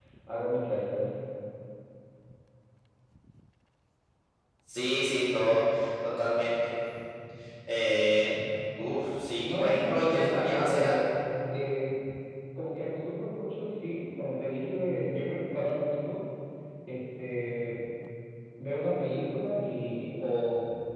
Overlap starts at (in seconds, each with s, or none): 9.4 s